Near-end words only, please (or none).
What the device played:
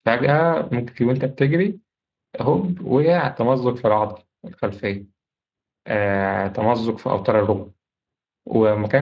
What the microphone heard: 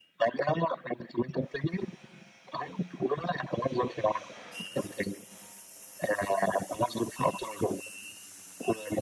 none